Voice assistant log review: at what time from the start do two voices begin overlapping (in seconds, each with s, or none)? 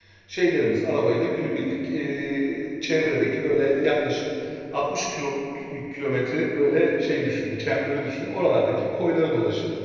none